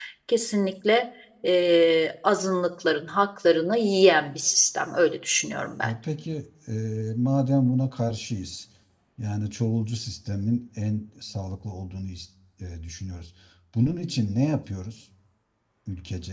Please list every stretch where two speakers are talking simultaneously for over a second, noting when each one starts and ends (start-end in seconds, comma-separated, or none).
none